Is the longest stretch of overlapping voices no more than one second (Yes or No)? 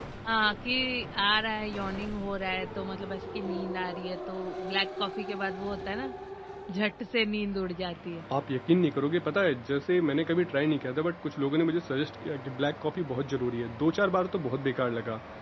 Yes